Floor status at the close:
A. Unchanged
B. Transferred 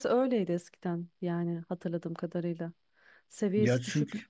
A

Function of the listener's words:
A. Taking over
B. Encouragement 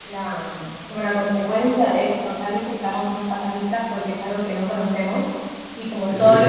B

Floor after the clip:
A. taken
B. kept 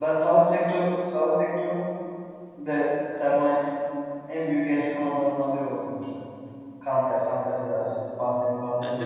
A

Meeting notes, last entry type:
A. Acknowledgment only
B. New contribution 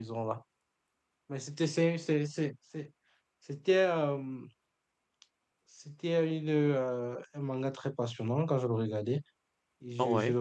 A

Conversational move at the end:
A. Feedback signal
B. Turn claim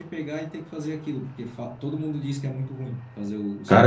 B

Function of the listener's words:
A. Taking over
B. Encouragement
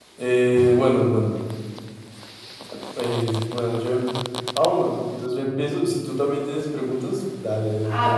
A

